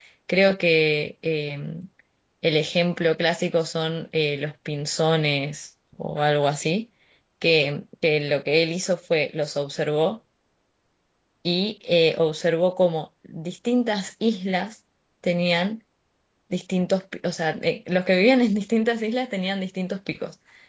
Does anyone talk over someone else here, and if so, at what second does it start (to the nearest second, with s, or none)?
none